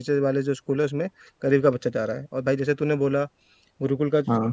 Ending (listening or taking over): listening